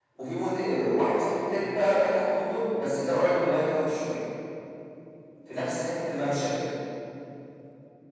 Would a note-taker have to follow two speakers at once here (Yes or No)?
No